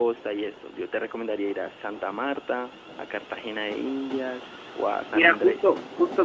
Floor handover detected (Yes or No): Yes